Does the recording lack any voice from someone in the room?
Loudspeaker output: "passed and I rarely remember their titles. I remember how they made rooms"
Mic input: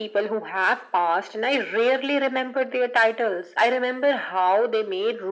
Yes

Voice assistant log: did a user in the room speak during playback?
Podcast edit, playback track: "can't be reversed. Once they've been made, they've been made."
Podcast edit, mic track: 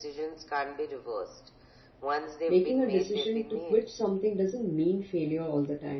Yes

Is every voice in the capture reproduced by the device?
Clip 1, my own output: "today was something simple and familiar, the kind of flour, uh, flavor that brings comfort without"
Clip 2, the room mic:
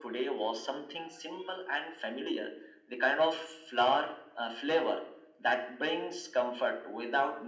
Yes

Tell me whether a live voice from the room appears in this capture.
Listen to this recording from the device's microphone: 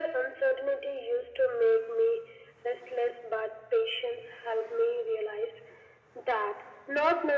No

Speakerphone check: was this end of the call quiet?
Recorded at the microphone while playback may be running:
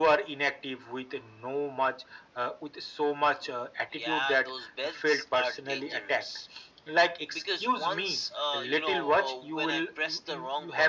Yes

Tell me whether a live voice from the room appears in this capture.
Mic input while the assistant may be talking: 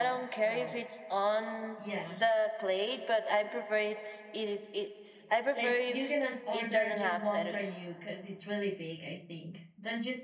Yes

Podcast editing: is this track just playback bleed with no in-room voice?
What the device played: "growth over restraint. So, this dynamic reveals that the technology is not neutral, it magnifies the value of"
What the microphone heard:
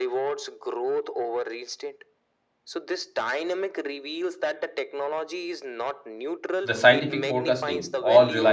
No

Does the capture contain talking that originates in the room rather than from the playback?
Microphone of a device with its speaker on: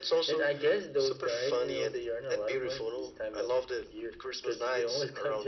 No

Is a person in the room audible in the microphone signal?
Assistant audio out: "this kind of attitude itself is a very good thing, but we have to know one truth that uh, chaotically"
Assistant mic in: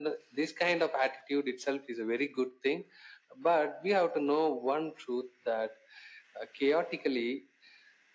No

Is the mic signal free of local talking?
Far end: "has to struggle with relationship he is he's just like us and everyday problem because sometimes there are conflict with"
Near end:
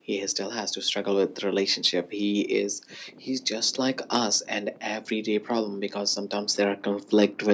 Yes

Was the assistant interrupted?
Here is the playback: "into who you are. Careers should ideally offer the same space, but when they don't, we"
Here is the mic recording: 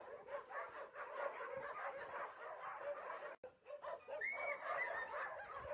No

